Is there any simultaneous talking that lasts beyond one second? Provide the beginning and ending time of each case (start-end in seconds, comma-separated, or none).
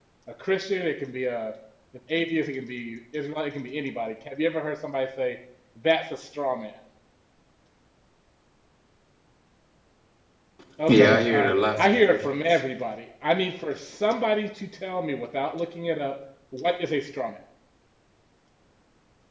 10.9-12.6